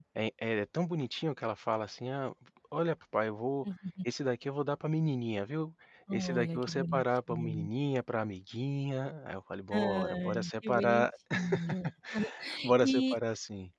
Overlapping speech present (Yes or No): Yes